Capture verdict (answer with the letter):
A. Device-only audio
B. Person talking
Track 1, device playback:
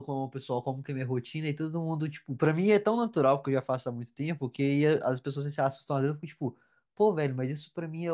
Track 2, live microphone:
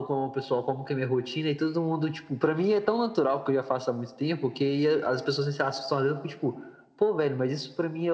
A